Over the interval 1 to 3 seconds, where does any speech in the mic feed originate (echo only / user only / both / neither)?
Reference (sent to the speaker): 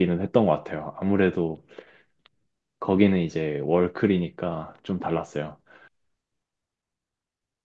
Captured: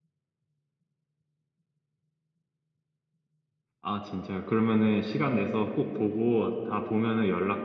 neither